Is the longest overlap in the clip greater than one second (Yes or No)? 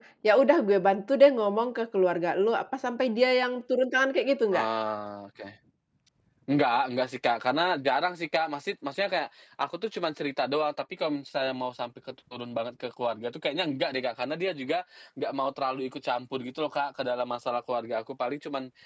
No